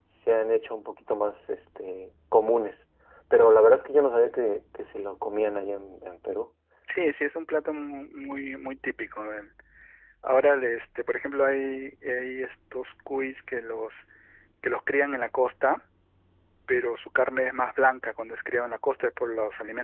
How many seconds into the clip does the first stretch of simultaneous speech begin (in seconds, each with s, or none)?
none